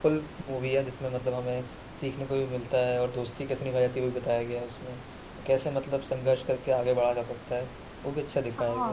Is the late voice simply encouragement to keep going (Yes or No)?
No